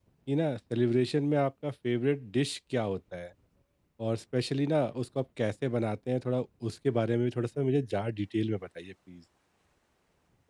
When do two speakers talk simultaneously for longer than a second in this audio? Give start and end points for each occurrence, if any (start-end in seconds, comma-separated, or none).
none